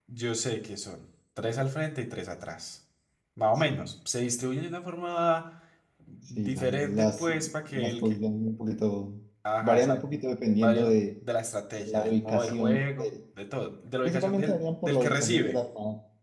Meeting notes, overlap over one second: present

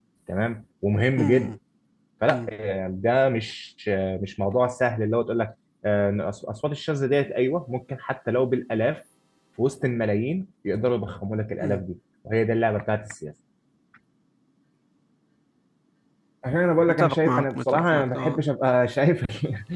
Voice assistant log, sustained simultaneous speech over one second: present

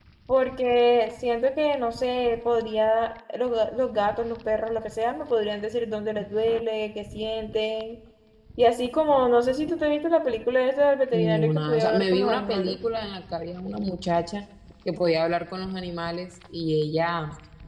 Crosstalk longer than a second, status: present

